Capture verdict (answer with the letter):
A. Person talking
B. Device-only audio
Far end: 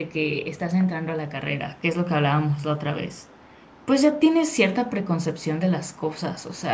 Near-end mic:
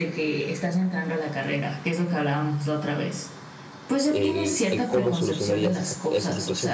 A